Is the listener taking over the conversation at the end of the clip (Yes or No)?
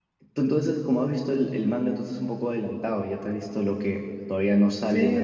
Yes